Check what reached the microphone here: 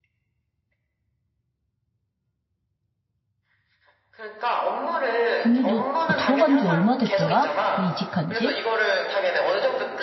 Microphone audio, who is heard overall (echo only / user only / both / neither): both